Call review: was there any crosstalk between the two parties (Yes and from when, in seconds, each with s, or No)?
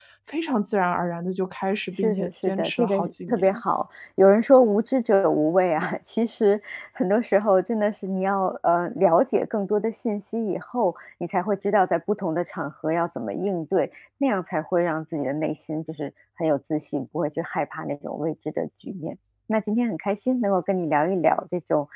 Yes, from 2.0 s